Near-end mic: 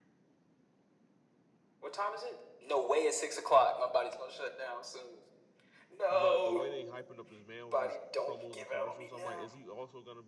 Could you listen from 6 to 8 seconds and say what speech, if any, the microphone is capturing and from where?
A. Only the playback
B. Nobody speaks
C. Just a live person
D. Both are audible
D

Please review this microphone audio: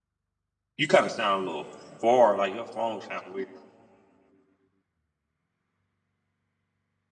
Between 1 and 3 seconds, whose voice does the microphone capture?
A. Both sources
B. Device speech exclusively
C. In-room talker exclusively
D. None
C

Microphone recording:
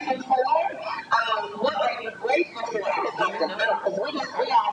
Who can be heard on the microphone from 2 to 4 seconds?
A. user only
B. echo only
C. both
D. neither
C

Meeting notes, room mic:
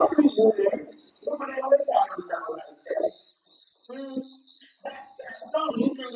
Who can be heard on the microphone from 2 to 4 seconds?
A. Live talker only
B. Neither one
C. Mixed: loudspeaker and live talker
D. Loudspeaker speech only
D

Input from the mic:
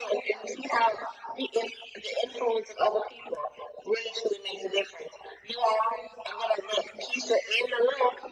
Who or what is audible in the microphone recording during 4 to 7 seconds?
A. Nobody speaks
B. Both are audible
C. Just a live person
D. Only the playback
D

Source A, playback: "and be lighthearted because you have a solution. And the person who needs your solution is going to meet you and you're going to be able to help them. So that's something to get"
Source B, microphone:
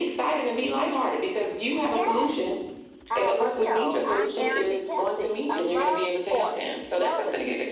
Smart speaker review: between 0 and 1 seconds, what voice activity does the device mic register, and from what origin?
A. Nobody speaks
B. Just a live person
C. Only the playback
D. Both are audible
C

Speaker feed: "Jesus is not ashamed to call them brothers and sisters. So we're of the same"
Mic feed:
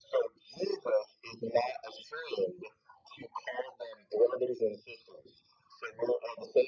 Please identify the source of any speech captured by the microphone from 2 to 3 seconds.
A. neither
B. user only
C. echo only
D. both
C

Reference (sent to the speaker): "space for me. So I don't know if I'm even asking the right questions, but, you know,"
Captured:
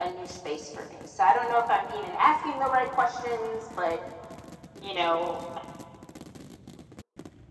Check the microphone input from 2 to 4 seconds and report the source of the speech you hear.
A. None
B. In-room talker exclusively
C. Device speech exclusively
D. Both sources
C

